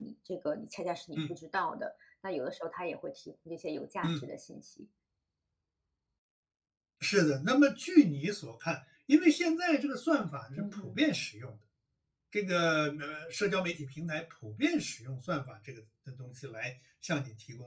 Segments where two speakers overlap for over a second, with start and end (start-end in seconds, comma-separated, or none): none